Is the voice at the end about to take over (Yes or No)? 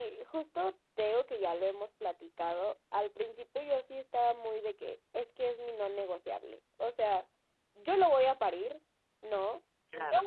No